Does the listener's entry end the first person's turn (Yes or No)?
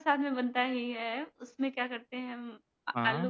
No